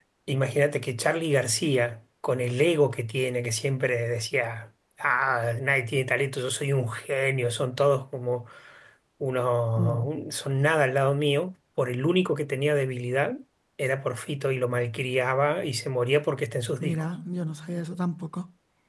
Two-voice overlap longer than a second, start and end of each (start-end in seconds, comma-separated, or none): none